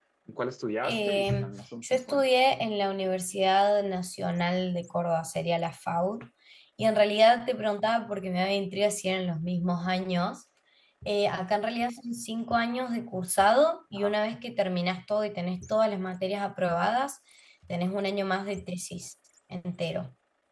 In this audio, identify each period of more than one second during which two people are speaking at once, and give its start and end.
0.8-2.4

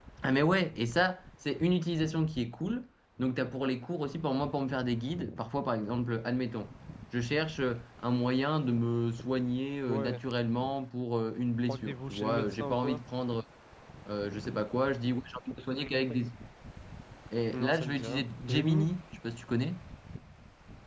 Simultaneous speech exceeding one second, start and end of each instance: 11.7-13.0, 17.5-18.9

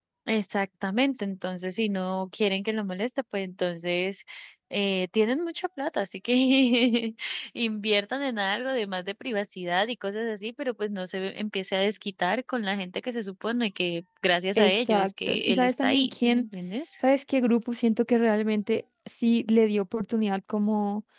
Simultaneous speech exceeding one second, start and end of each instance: 14.6-16.4

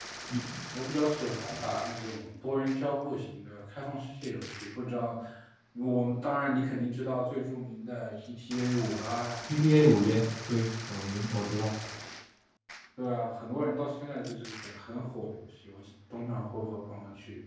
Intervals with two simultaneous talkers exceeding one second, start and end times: none

